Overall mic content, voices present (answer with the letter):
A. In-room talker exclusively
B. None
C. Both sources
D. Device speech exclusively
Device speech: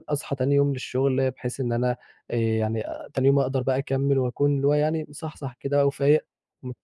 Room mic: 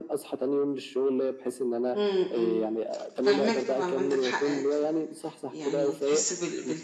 C